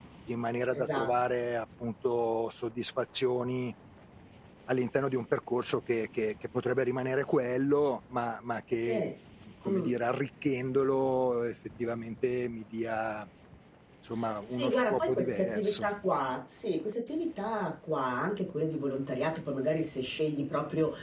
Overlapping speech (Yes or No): Yes